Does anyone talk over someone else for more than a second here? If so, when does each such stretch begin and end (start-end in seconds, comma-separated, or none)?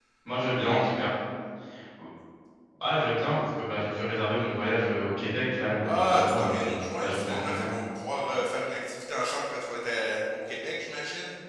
5.8-7.7